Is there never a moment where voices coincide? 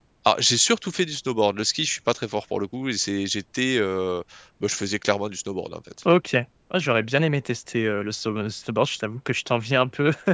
Yes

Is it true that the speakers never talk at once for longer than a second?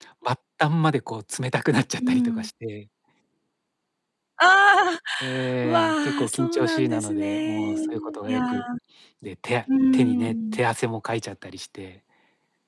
No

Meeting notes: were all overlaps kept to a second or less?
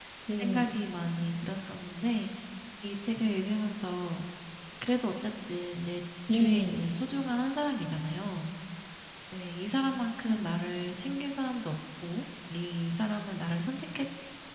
Yes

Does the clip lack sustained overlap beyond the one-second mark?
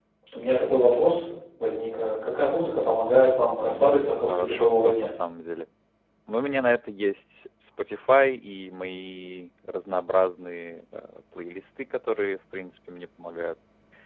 No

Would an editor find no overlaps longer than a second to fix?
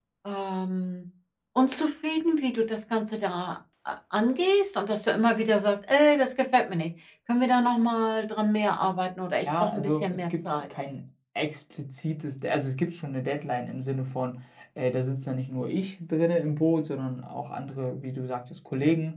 No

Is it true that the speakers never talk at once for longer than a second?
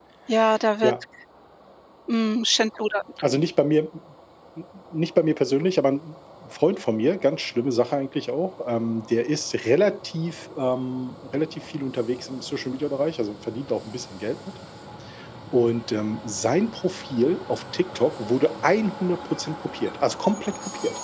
Yes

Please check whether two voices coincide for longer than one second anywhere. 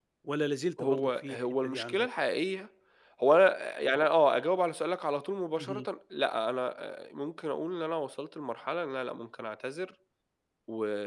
Yes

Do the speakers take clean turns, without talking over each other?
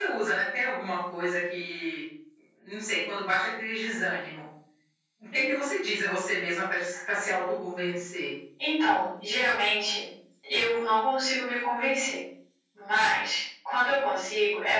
Yes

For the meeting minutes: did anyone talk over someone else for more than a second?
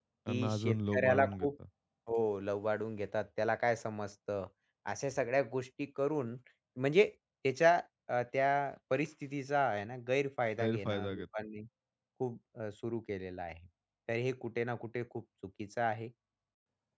Yes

